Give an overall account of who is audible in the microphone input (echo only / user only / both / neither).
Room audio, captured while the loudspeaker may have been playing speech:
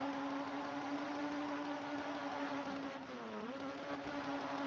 neither